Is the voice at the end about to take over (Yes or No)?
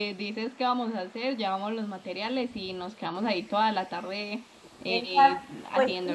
Yes